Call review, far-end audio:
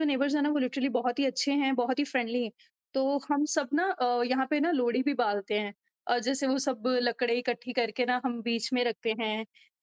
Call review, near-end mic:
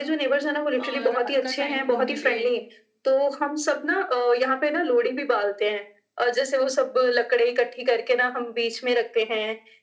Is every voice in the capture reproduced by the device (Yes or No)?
No